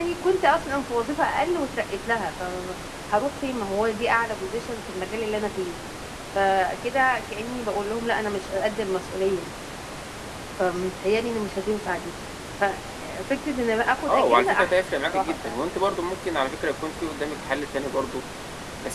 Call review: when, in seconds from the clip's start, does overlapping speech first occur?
14 s

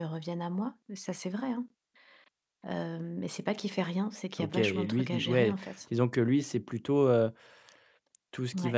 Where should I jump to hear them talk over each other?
4 s

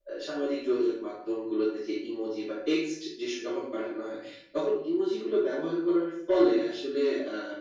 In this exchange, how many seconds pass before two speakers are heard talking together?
none

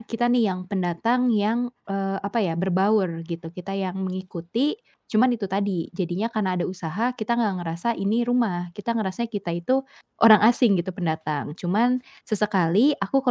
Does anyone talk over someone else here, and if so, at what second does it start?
none

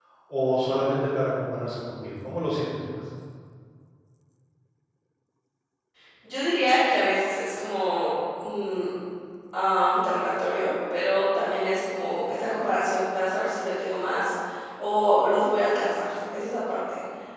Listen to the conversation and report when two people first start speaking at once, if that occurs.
none

